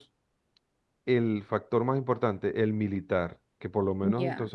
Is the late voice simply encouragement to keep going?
Yes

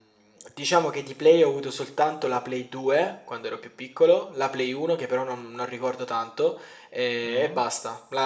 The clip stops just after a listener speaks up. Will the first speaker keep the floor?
Yes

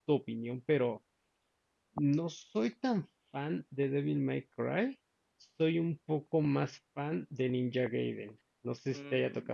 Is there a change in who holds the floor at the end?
Yes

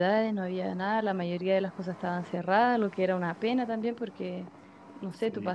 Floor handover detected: No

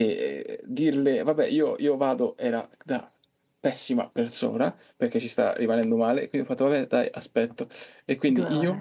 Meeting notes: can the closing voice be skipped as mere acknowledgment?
Yes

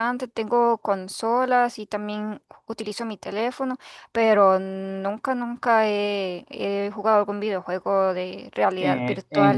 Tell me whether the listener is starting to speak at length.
Yes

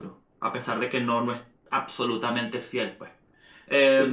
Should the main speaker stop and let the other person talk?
Yes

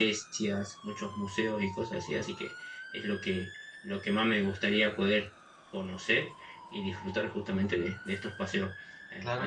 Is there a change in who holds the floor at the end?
No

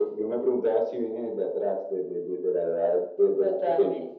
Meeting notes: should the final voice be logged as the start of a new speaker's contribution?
Yes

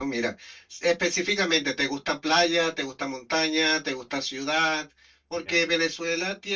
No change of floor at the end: Yes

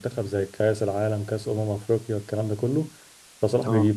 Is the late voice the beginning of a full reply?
No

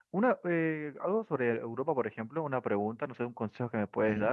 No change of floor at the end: Yes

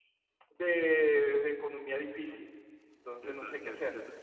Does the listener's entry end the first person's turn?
Yes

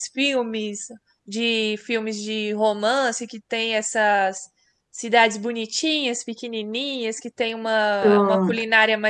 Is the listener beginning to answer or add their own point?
No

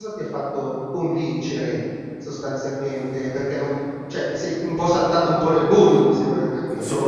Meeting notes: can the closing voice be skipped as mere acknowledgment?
No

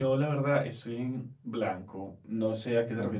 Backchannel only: Yes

